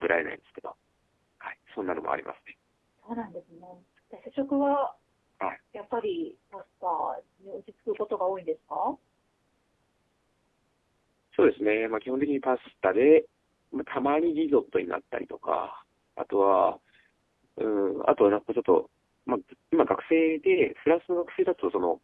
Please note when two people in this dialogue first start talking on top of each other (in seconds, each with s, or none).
none